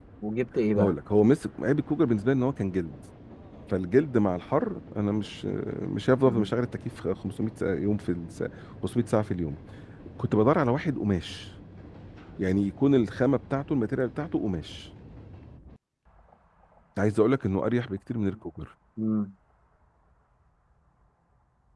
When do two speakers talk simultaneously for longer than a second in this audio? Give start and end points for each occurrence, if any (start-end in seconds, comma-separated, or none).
none